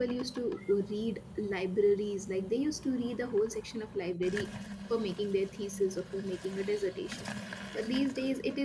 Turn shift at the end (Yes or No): No